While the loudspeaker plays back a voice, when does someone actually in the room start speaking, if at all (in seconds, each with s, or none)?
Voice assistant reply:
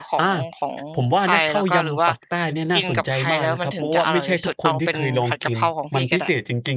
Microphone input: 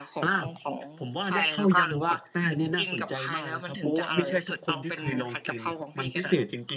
none